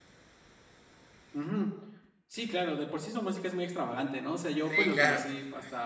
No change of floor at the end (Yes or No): Yes